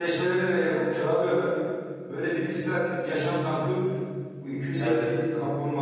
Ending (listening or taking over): listening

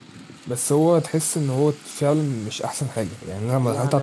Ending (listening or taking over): listening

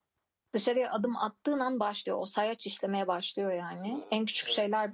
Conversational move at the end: listening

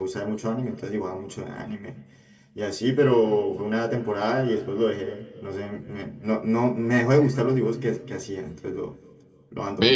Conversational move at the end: taking over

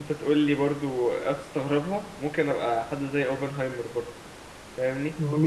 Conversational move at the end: taking over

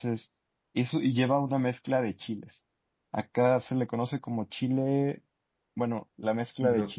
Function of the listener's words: taking over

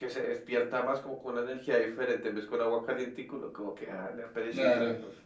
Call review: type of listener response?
taking over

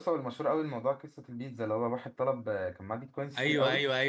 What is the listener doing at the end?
taking over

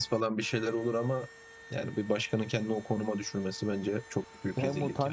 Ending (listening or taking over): taking over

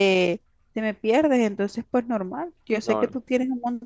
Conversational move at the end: listening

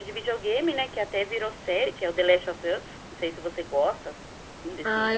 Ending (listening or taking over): taking over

